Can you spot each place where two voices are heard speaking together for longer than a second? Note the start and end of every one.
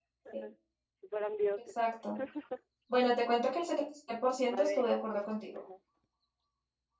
none

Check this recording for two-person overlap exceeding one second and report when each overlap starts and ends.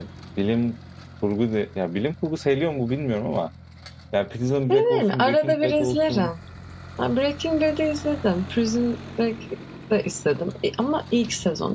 4.7-6.3

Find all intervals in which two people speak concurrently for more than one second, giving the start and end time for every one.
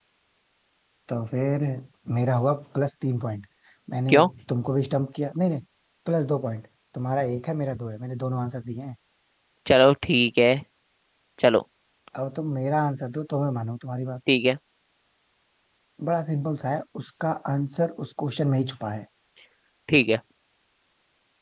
none

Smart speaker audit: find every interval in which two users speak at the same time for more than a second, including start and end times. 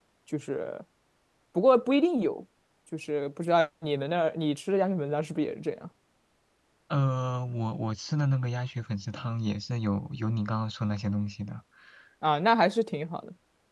none

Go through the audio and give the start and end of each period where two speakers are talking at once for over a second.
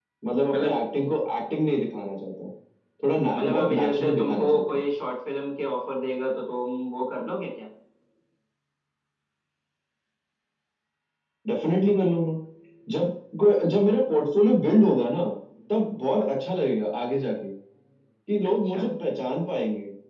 3.3-4.8

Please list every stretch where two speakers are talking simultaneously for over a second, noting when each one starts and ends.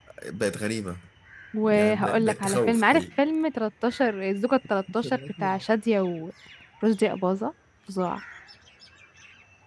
1.6-3.0

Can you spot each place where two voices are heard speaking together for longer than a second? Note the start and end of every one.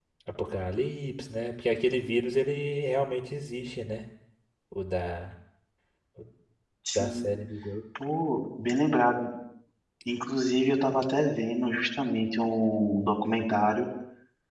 none

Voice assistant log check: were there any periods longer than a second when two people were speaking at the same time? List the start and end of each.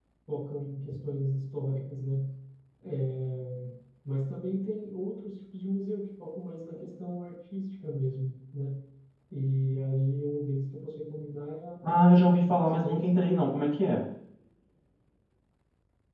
11.9-13.1

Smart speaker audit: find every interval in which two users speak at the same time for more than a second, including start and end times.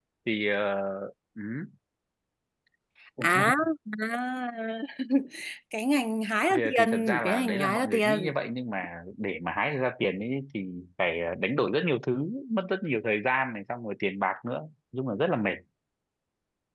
6.5-8.3

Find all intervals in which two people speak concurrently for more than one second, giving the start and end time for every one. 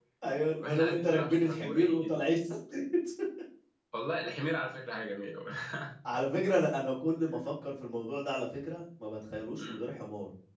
0.6-2.1

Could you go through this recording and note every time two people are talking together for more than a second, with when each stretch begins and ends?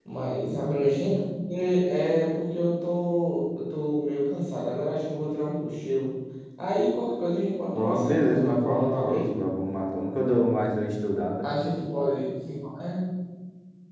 7.8-9.2

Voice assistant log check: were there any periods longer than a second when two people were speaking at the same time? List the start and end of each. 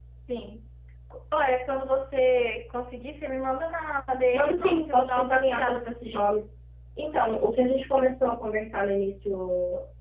4.3-6.4

